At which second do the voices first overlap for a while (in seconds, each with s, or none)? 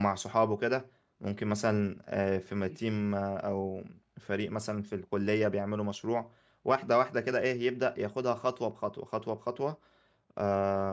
none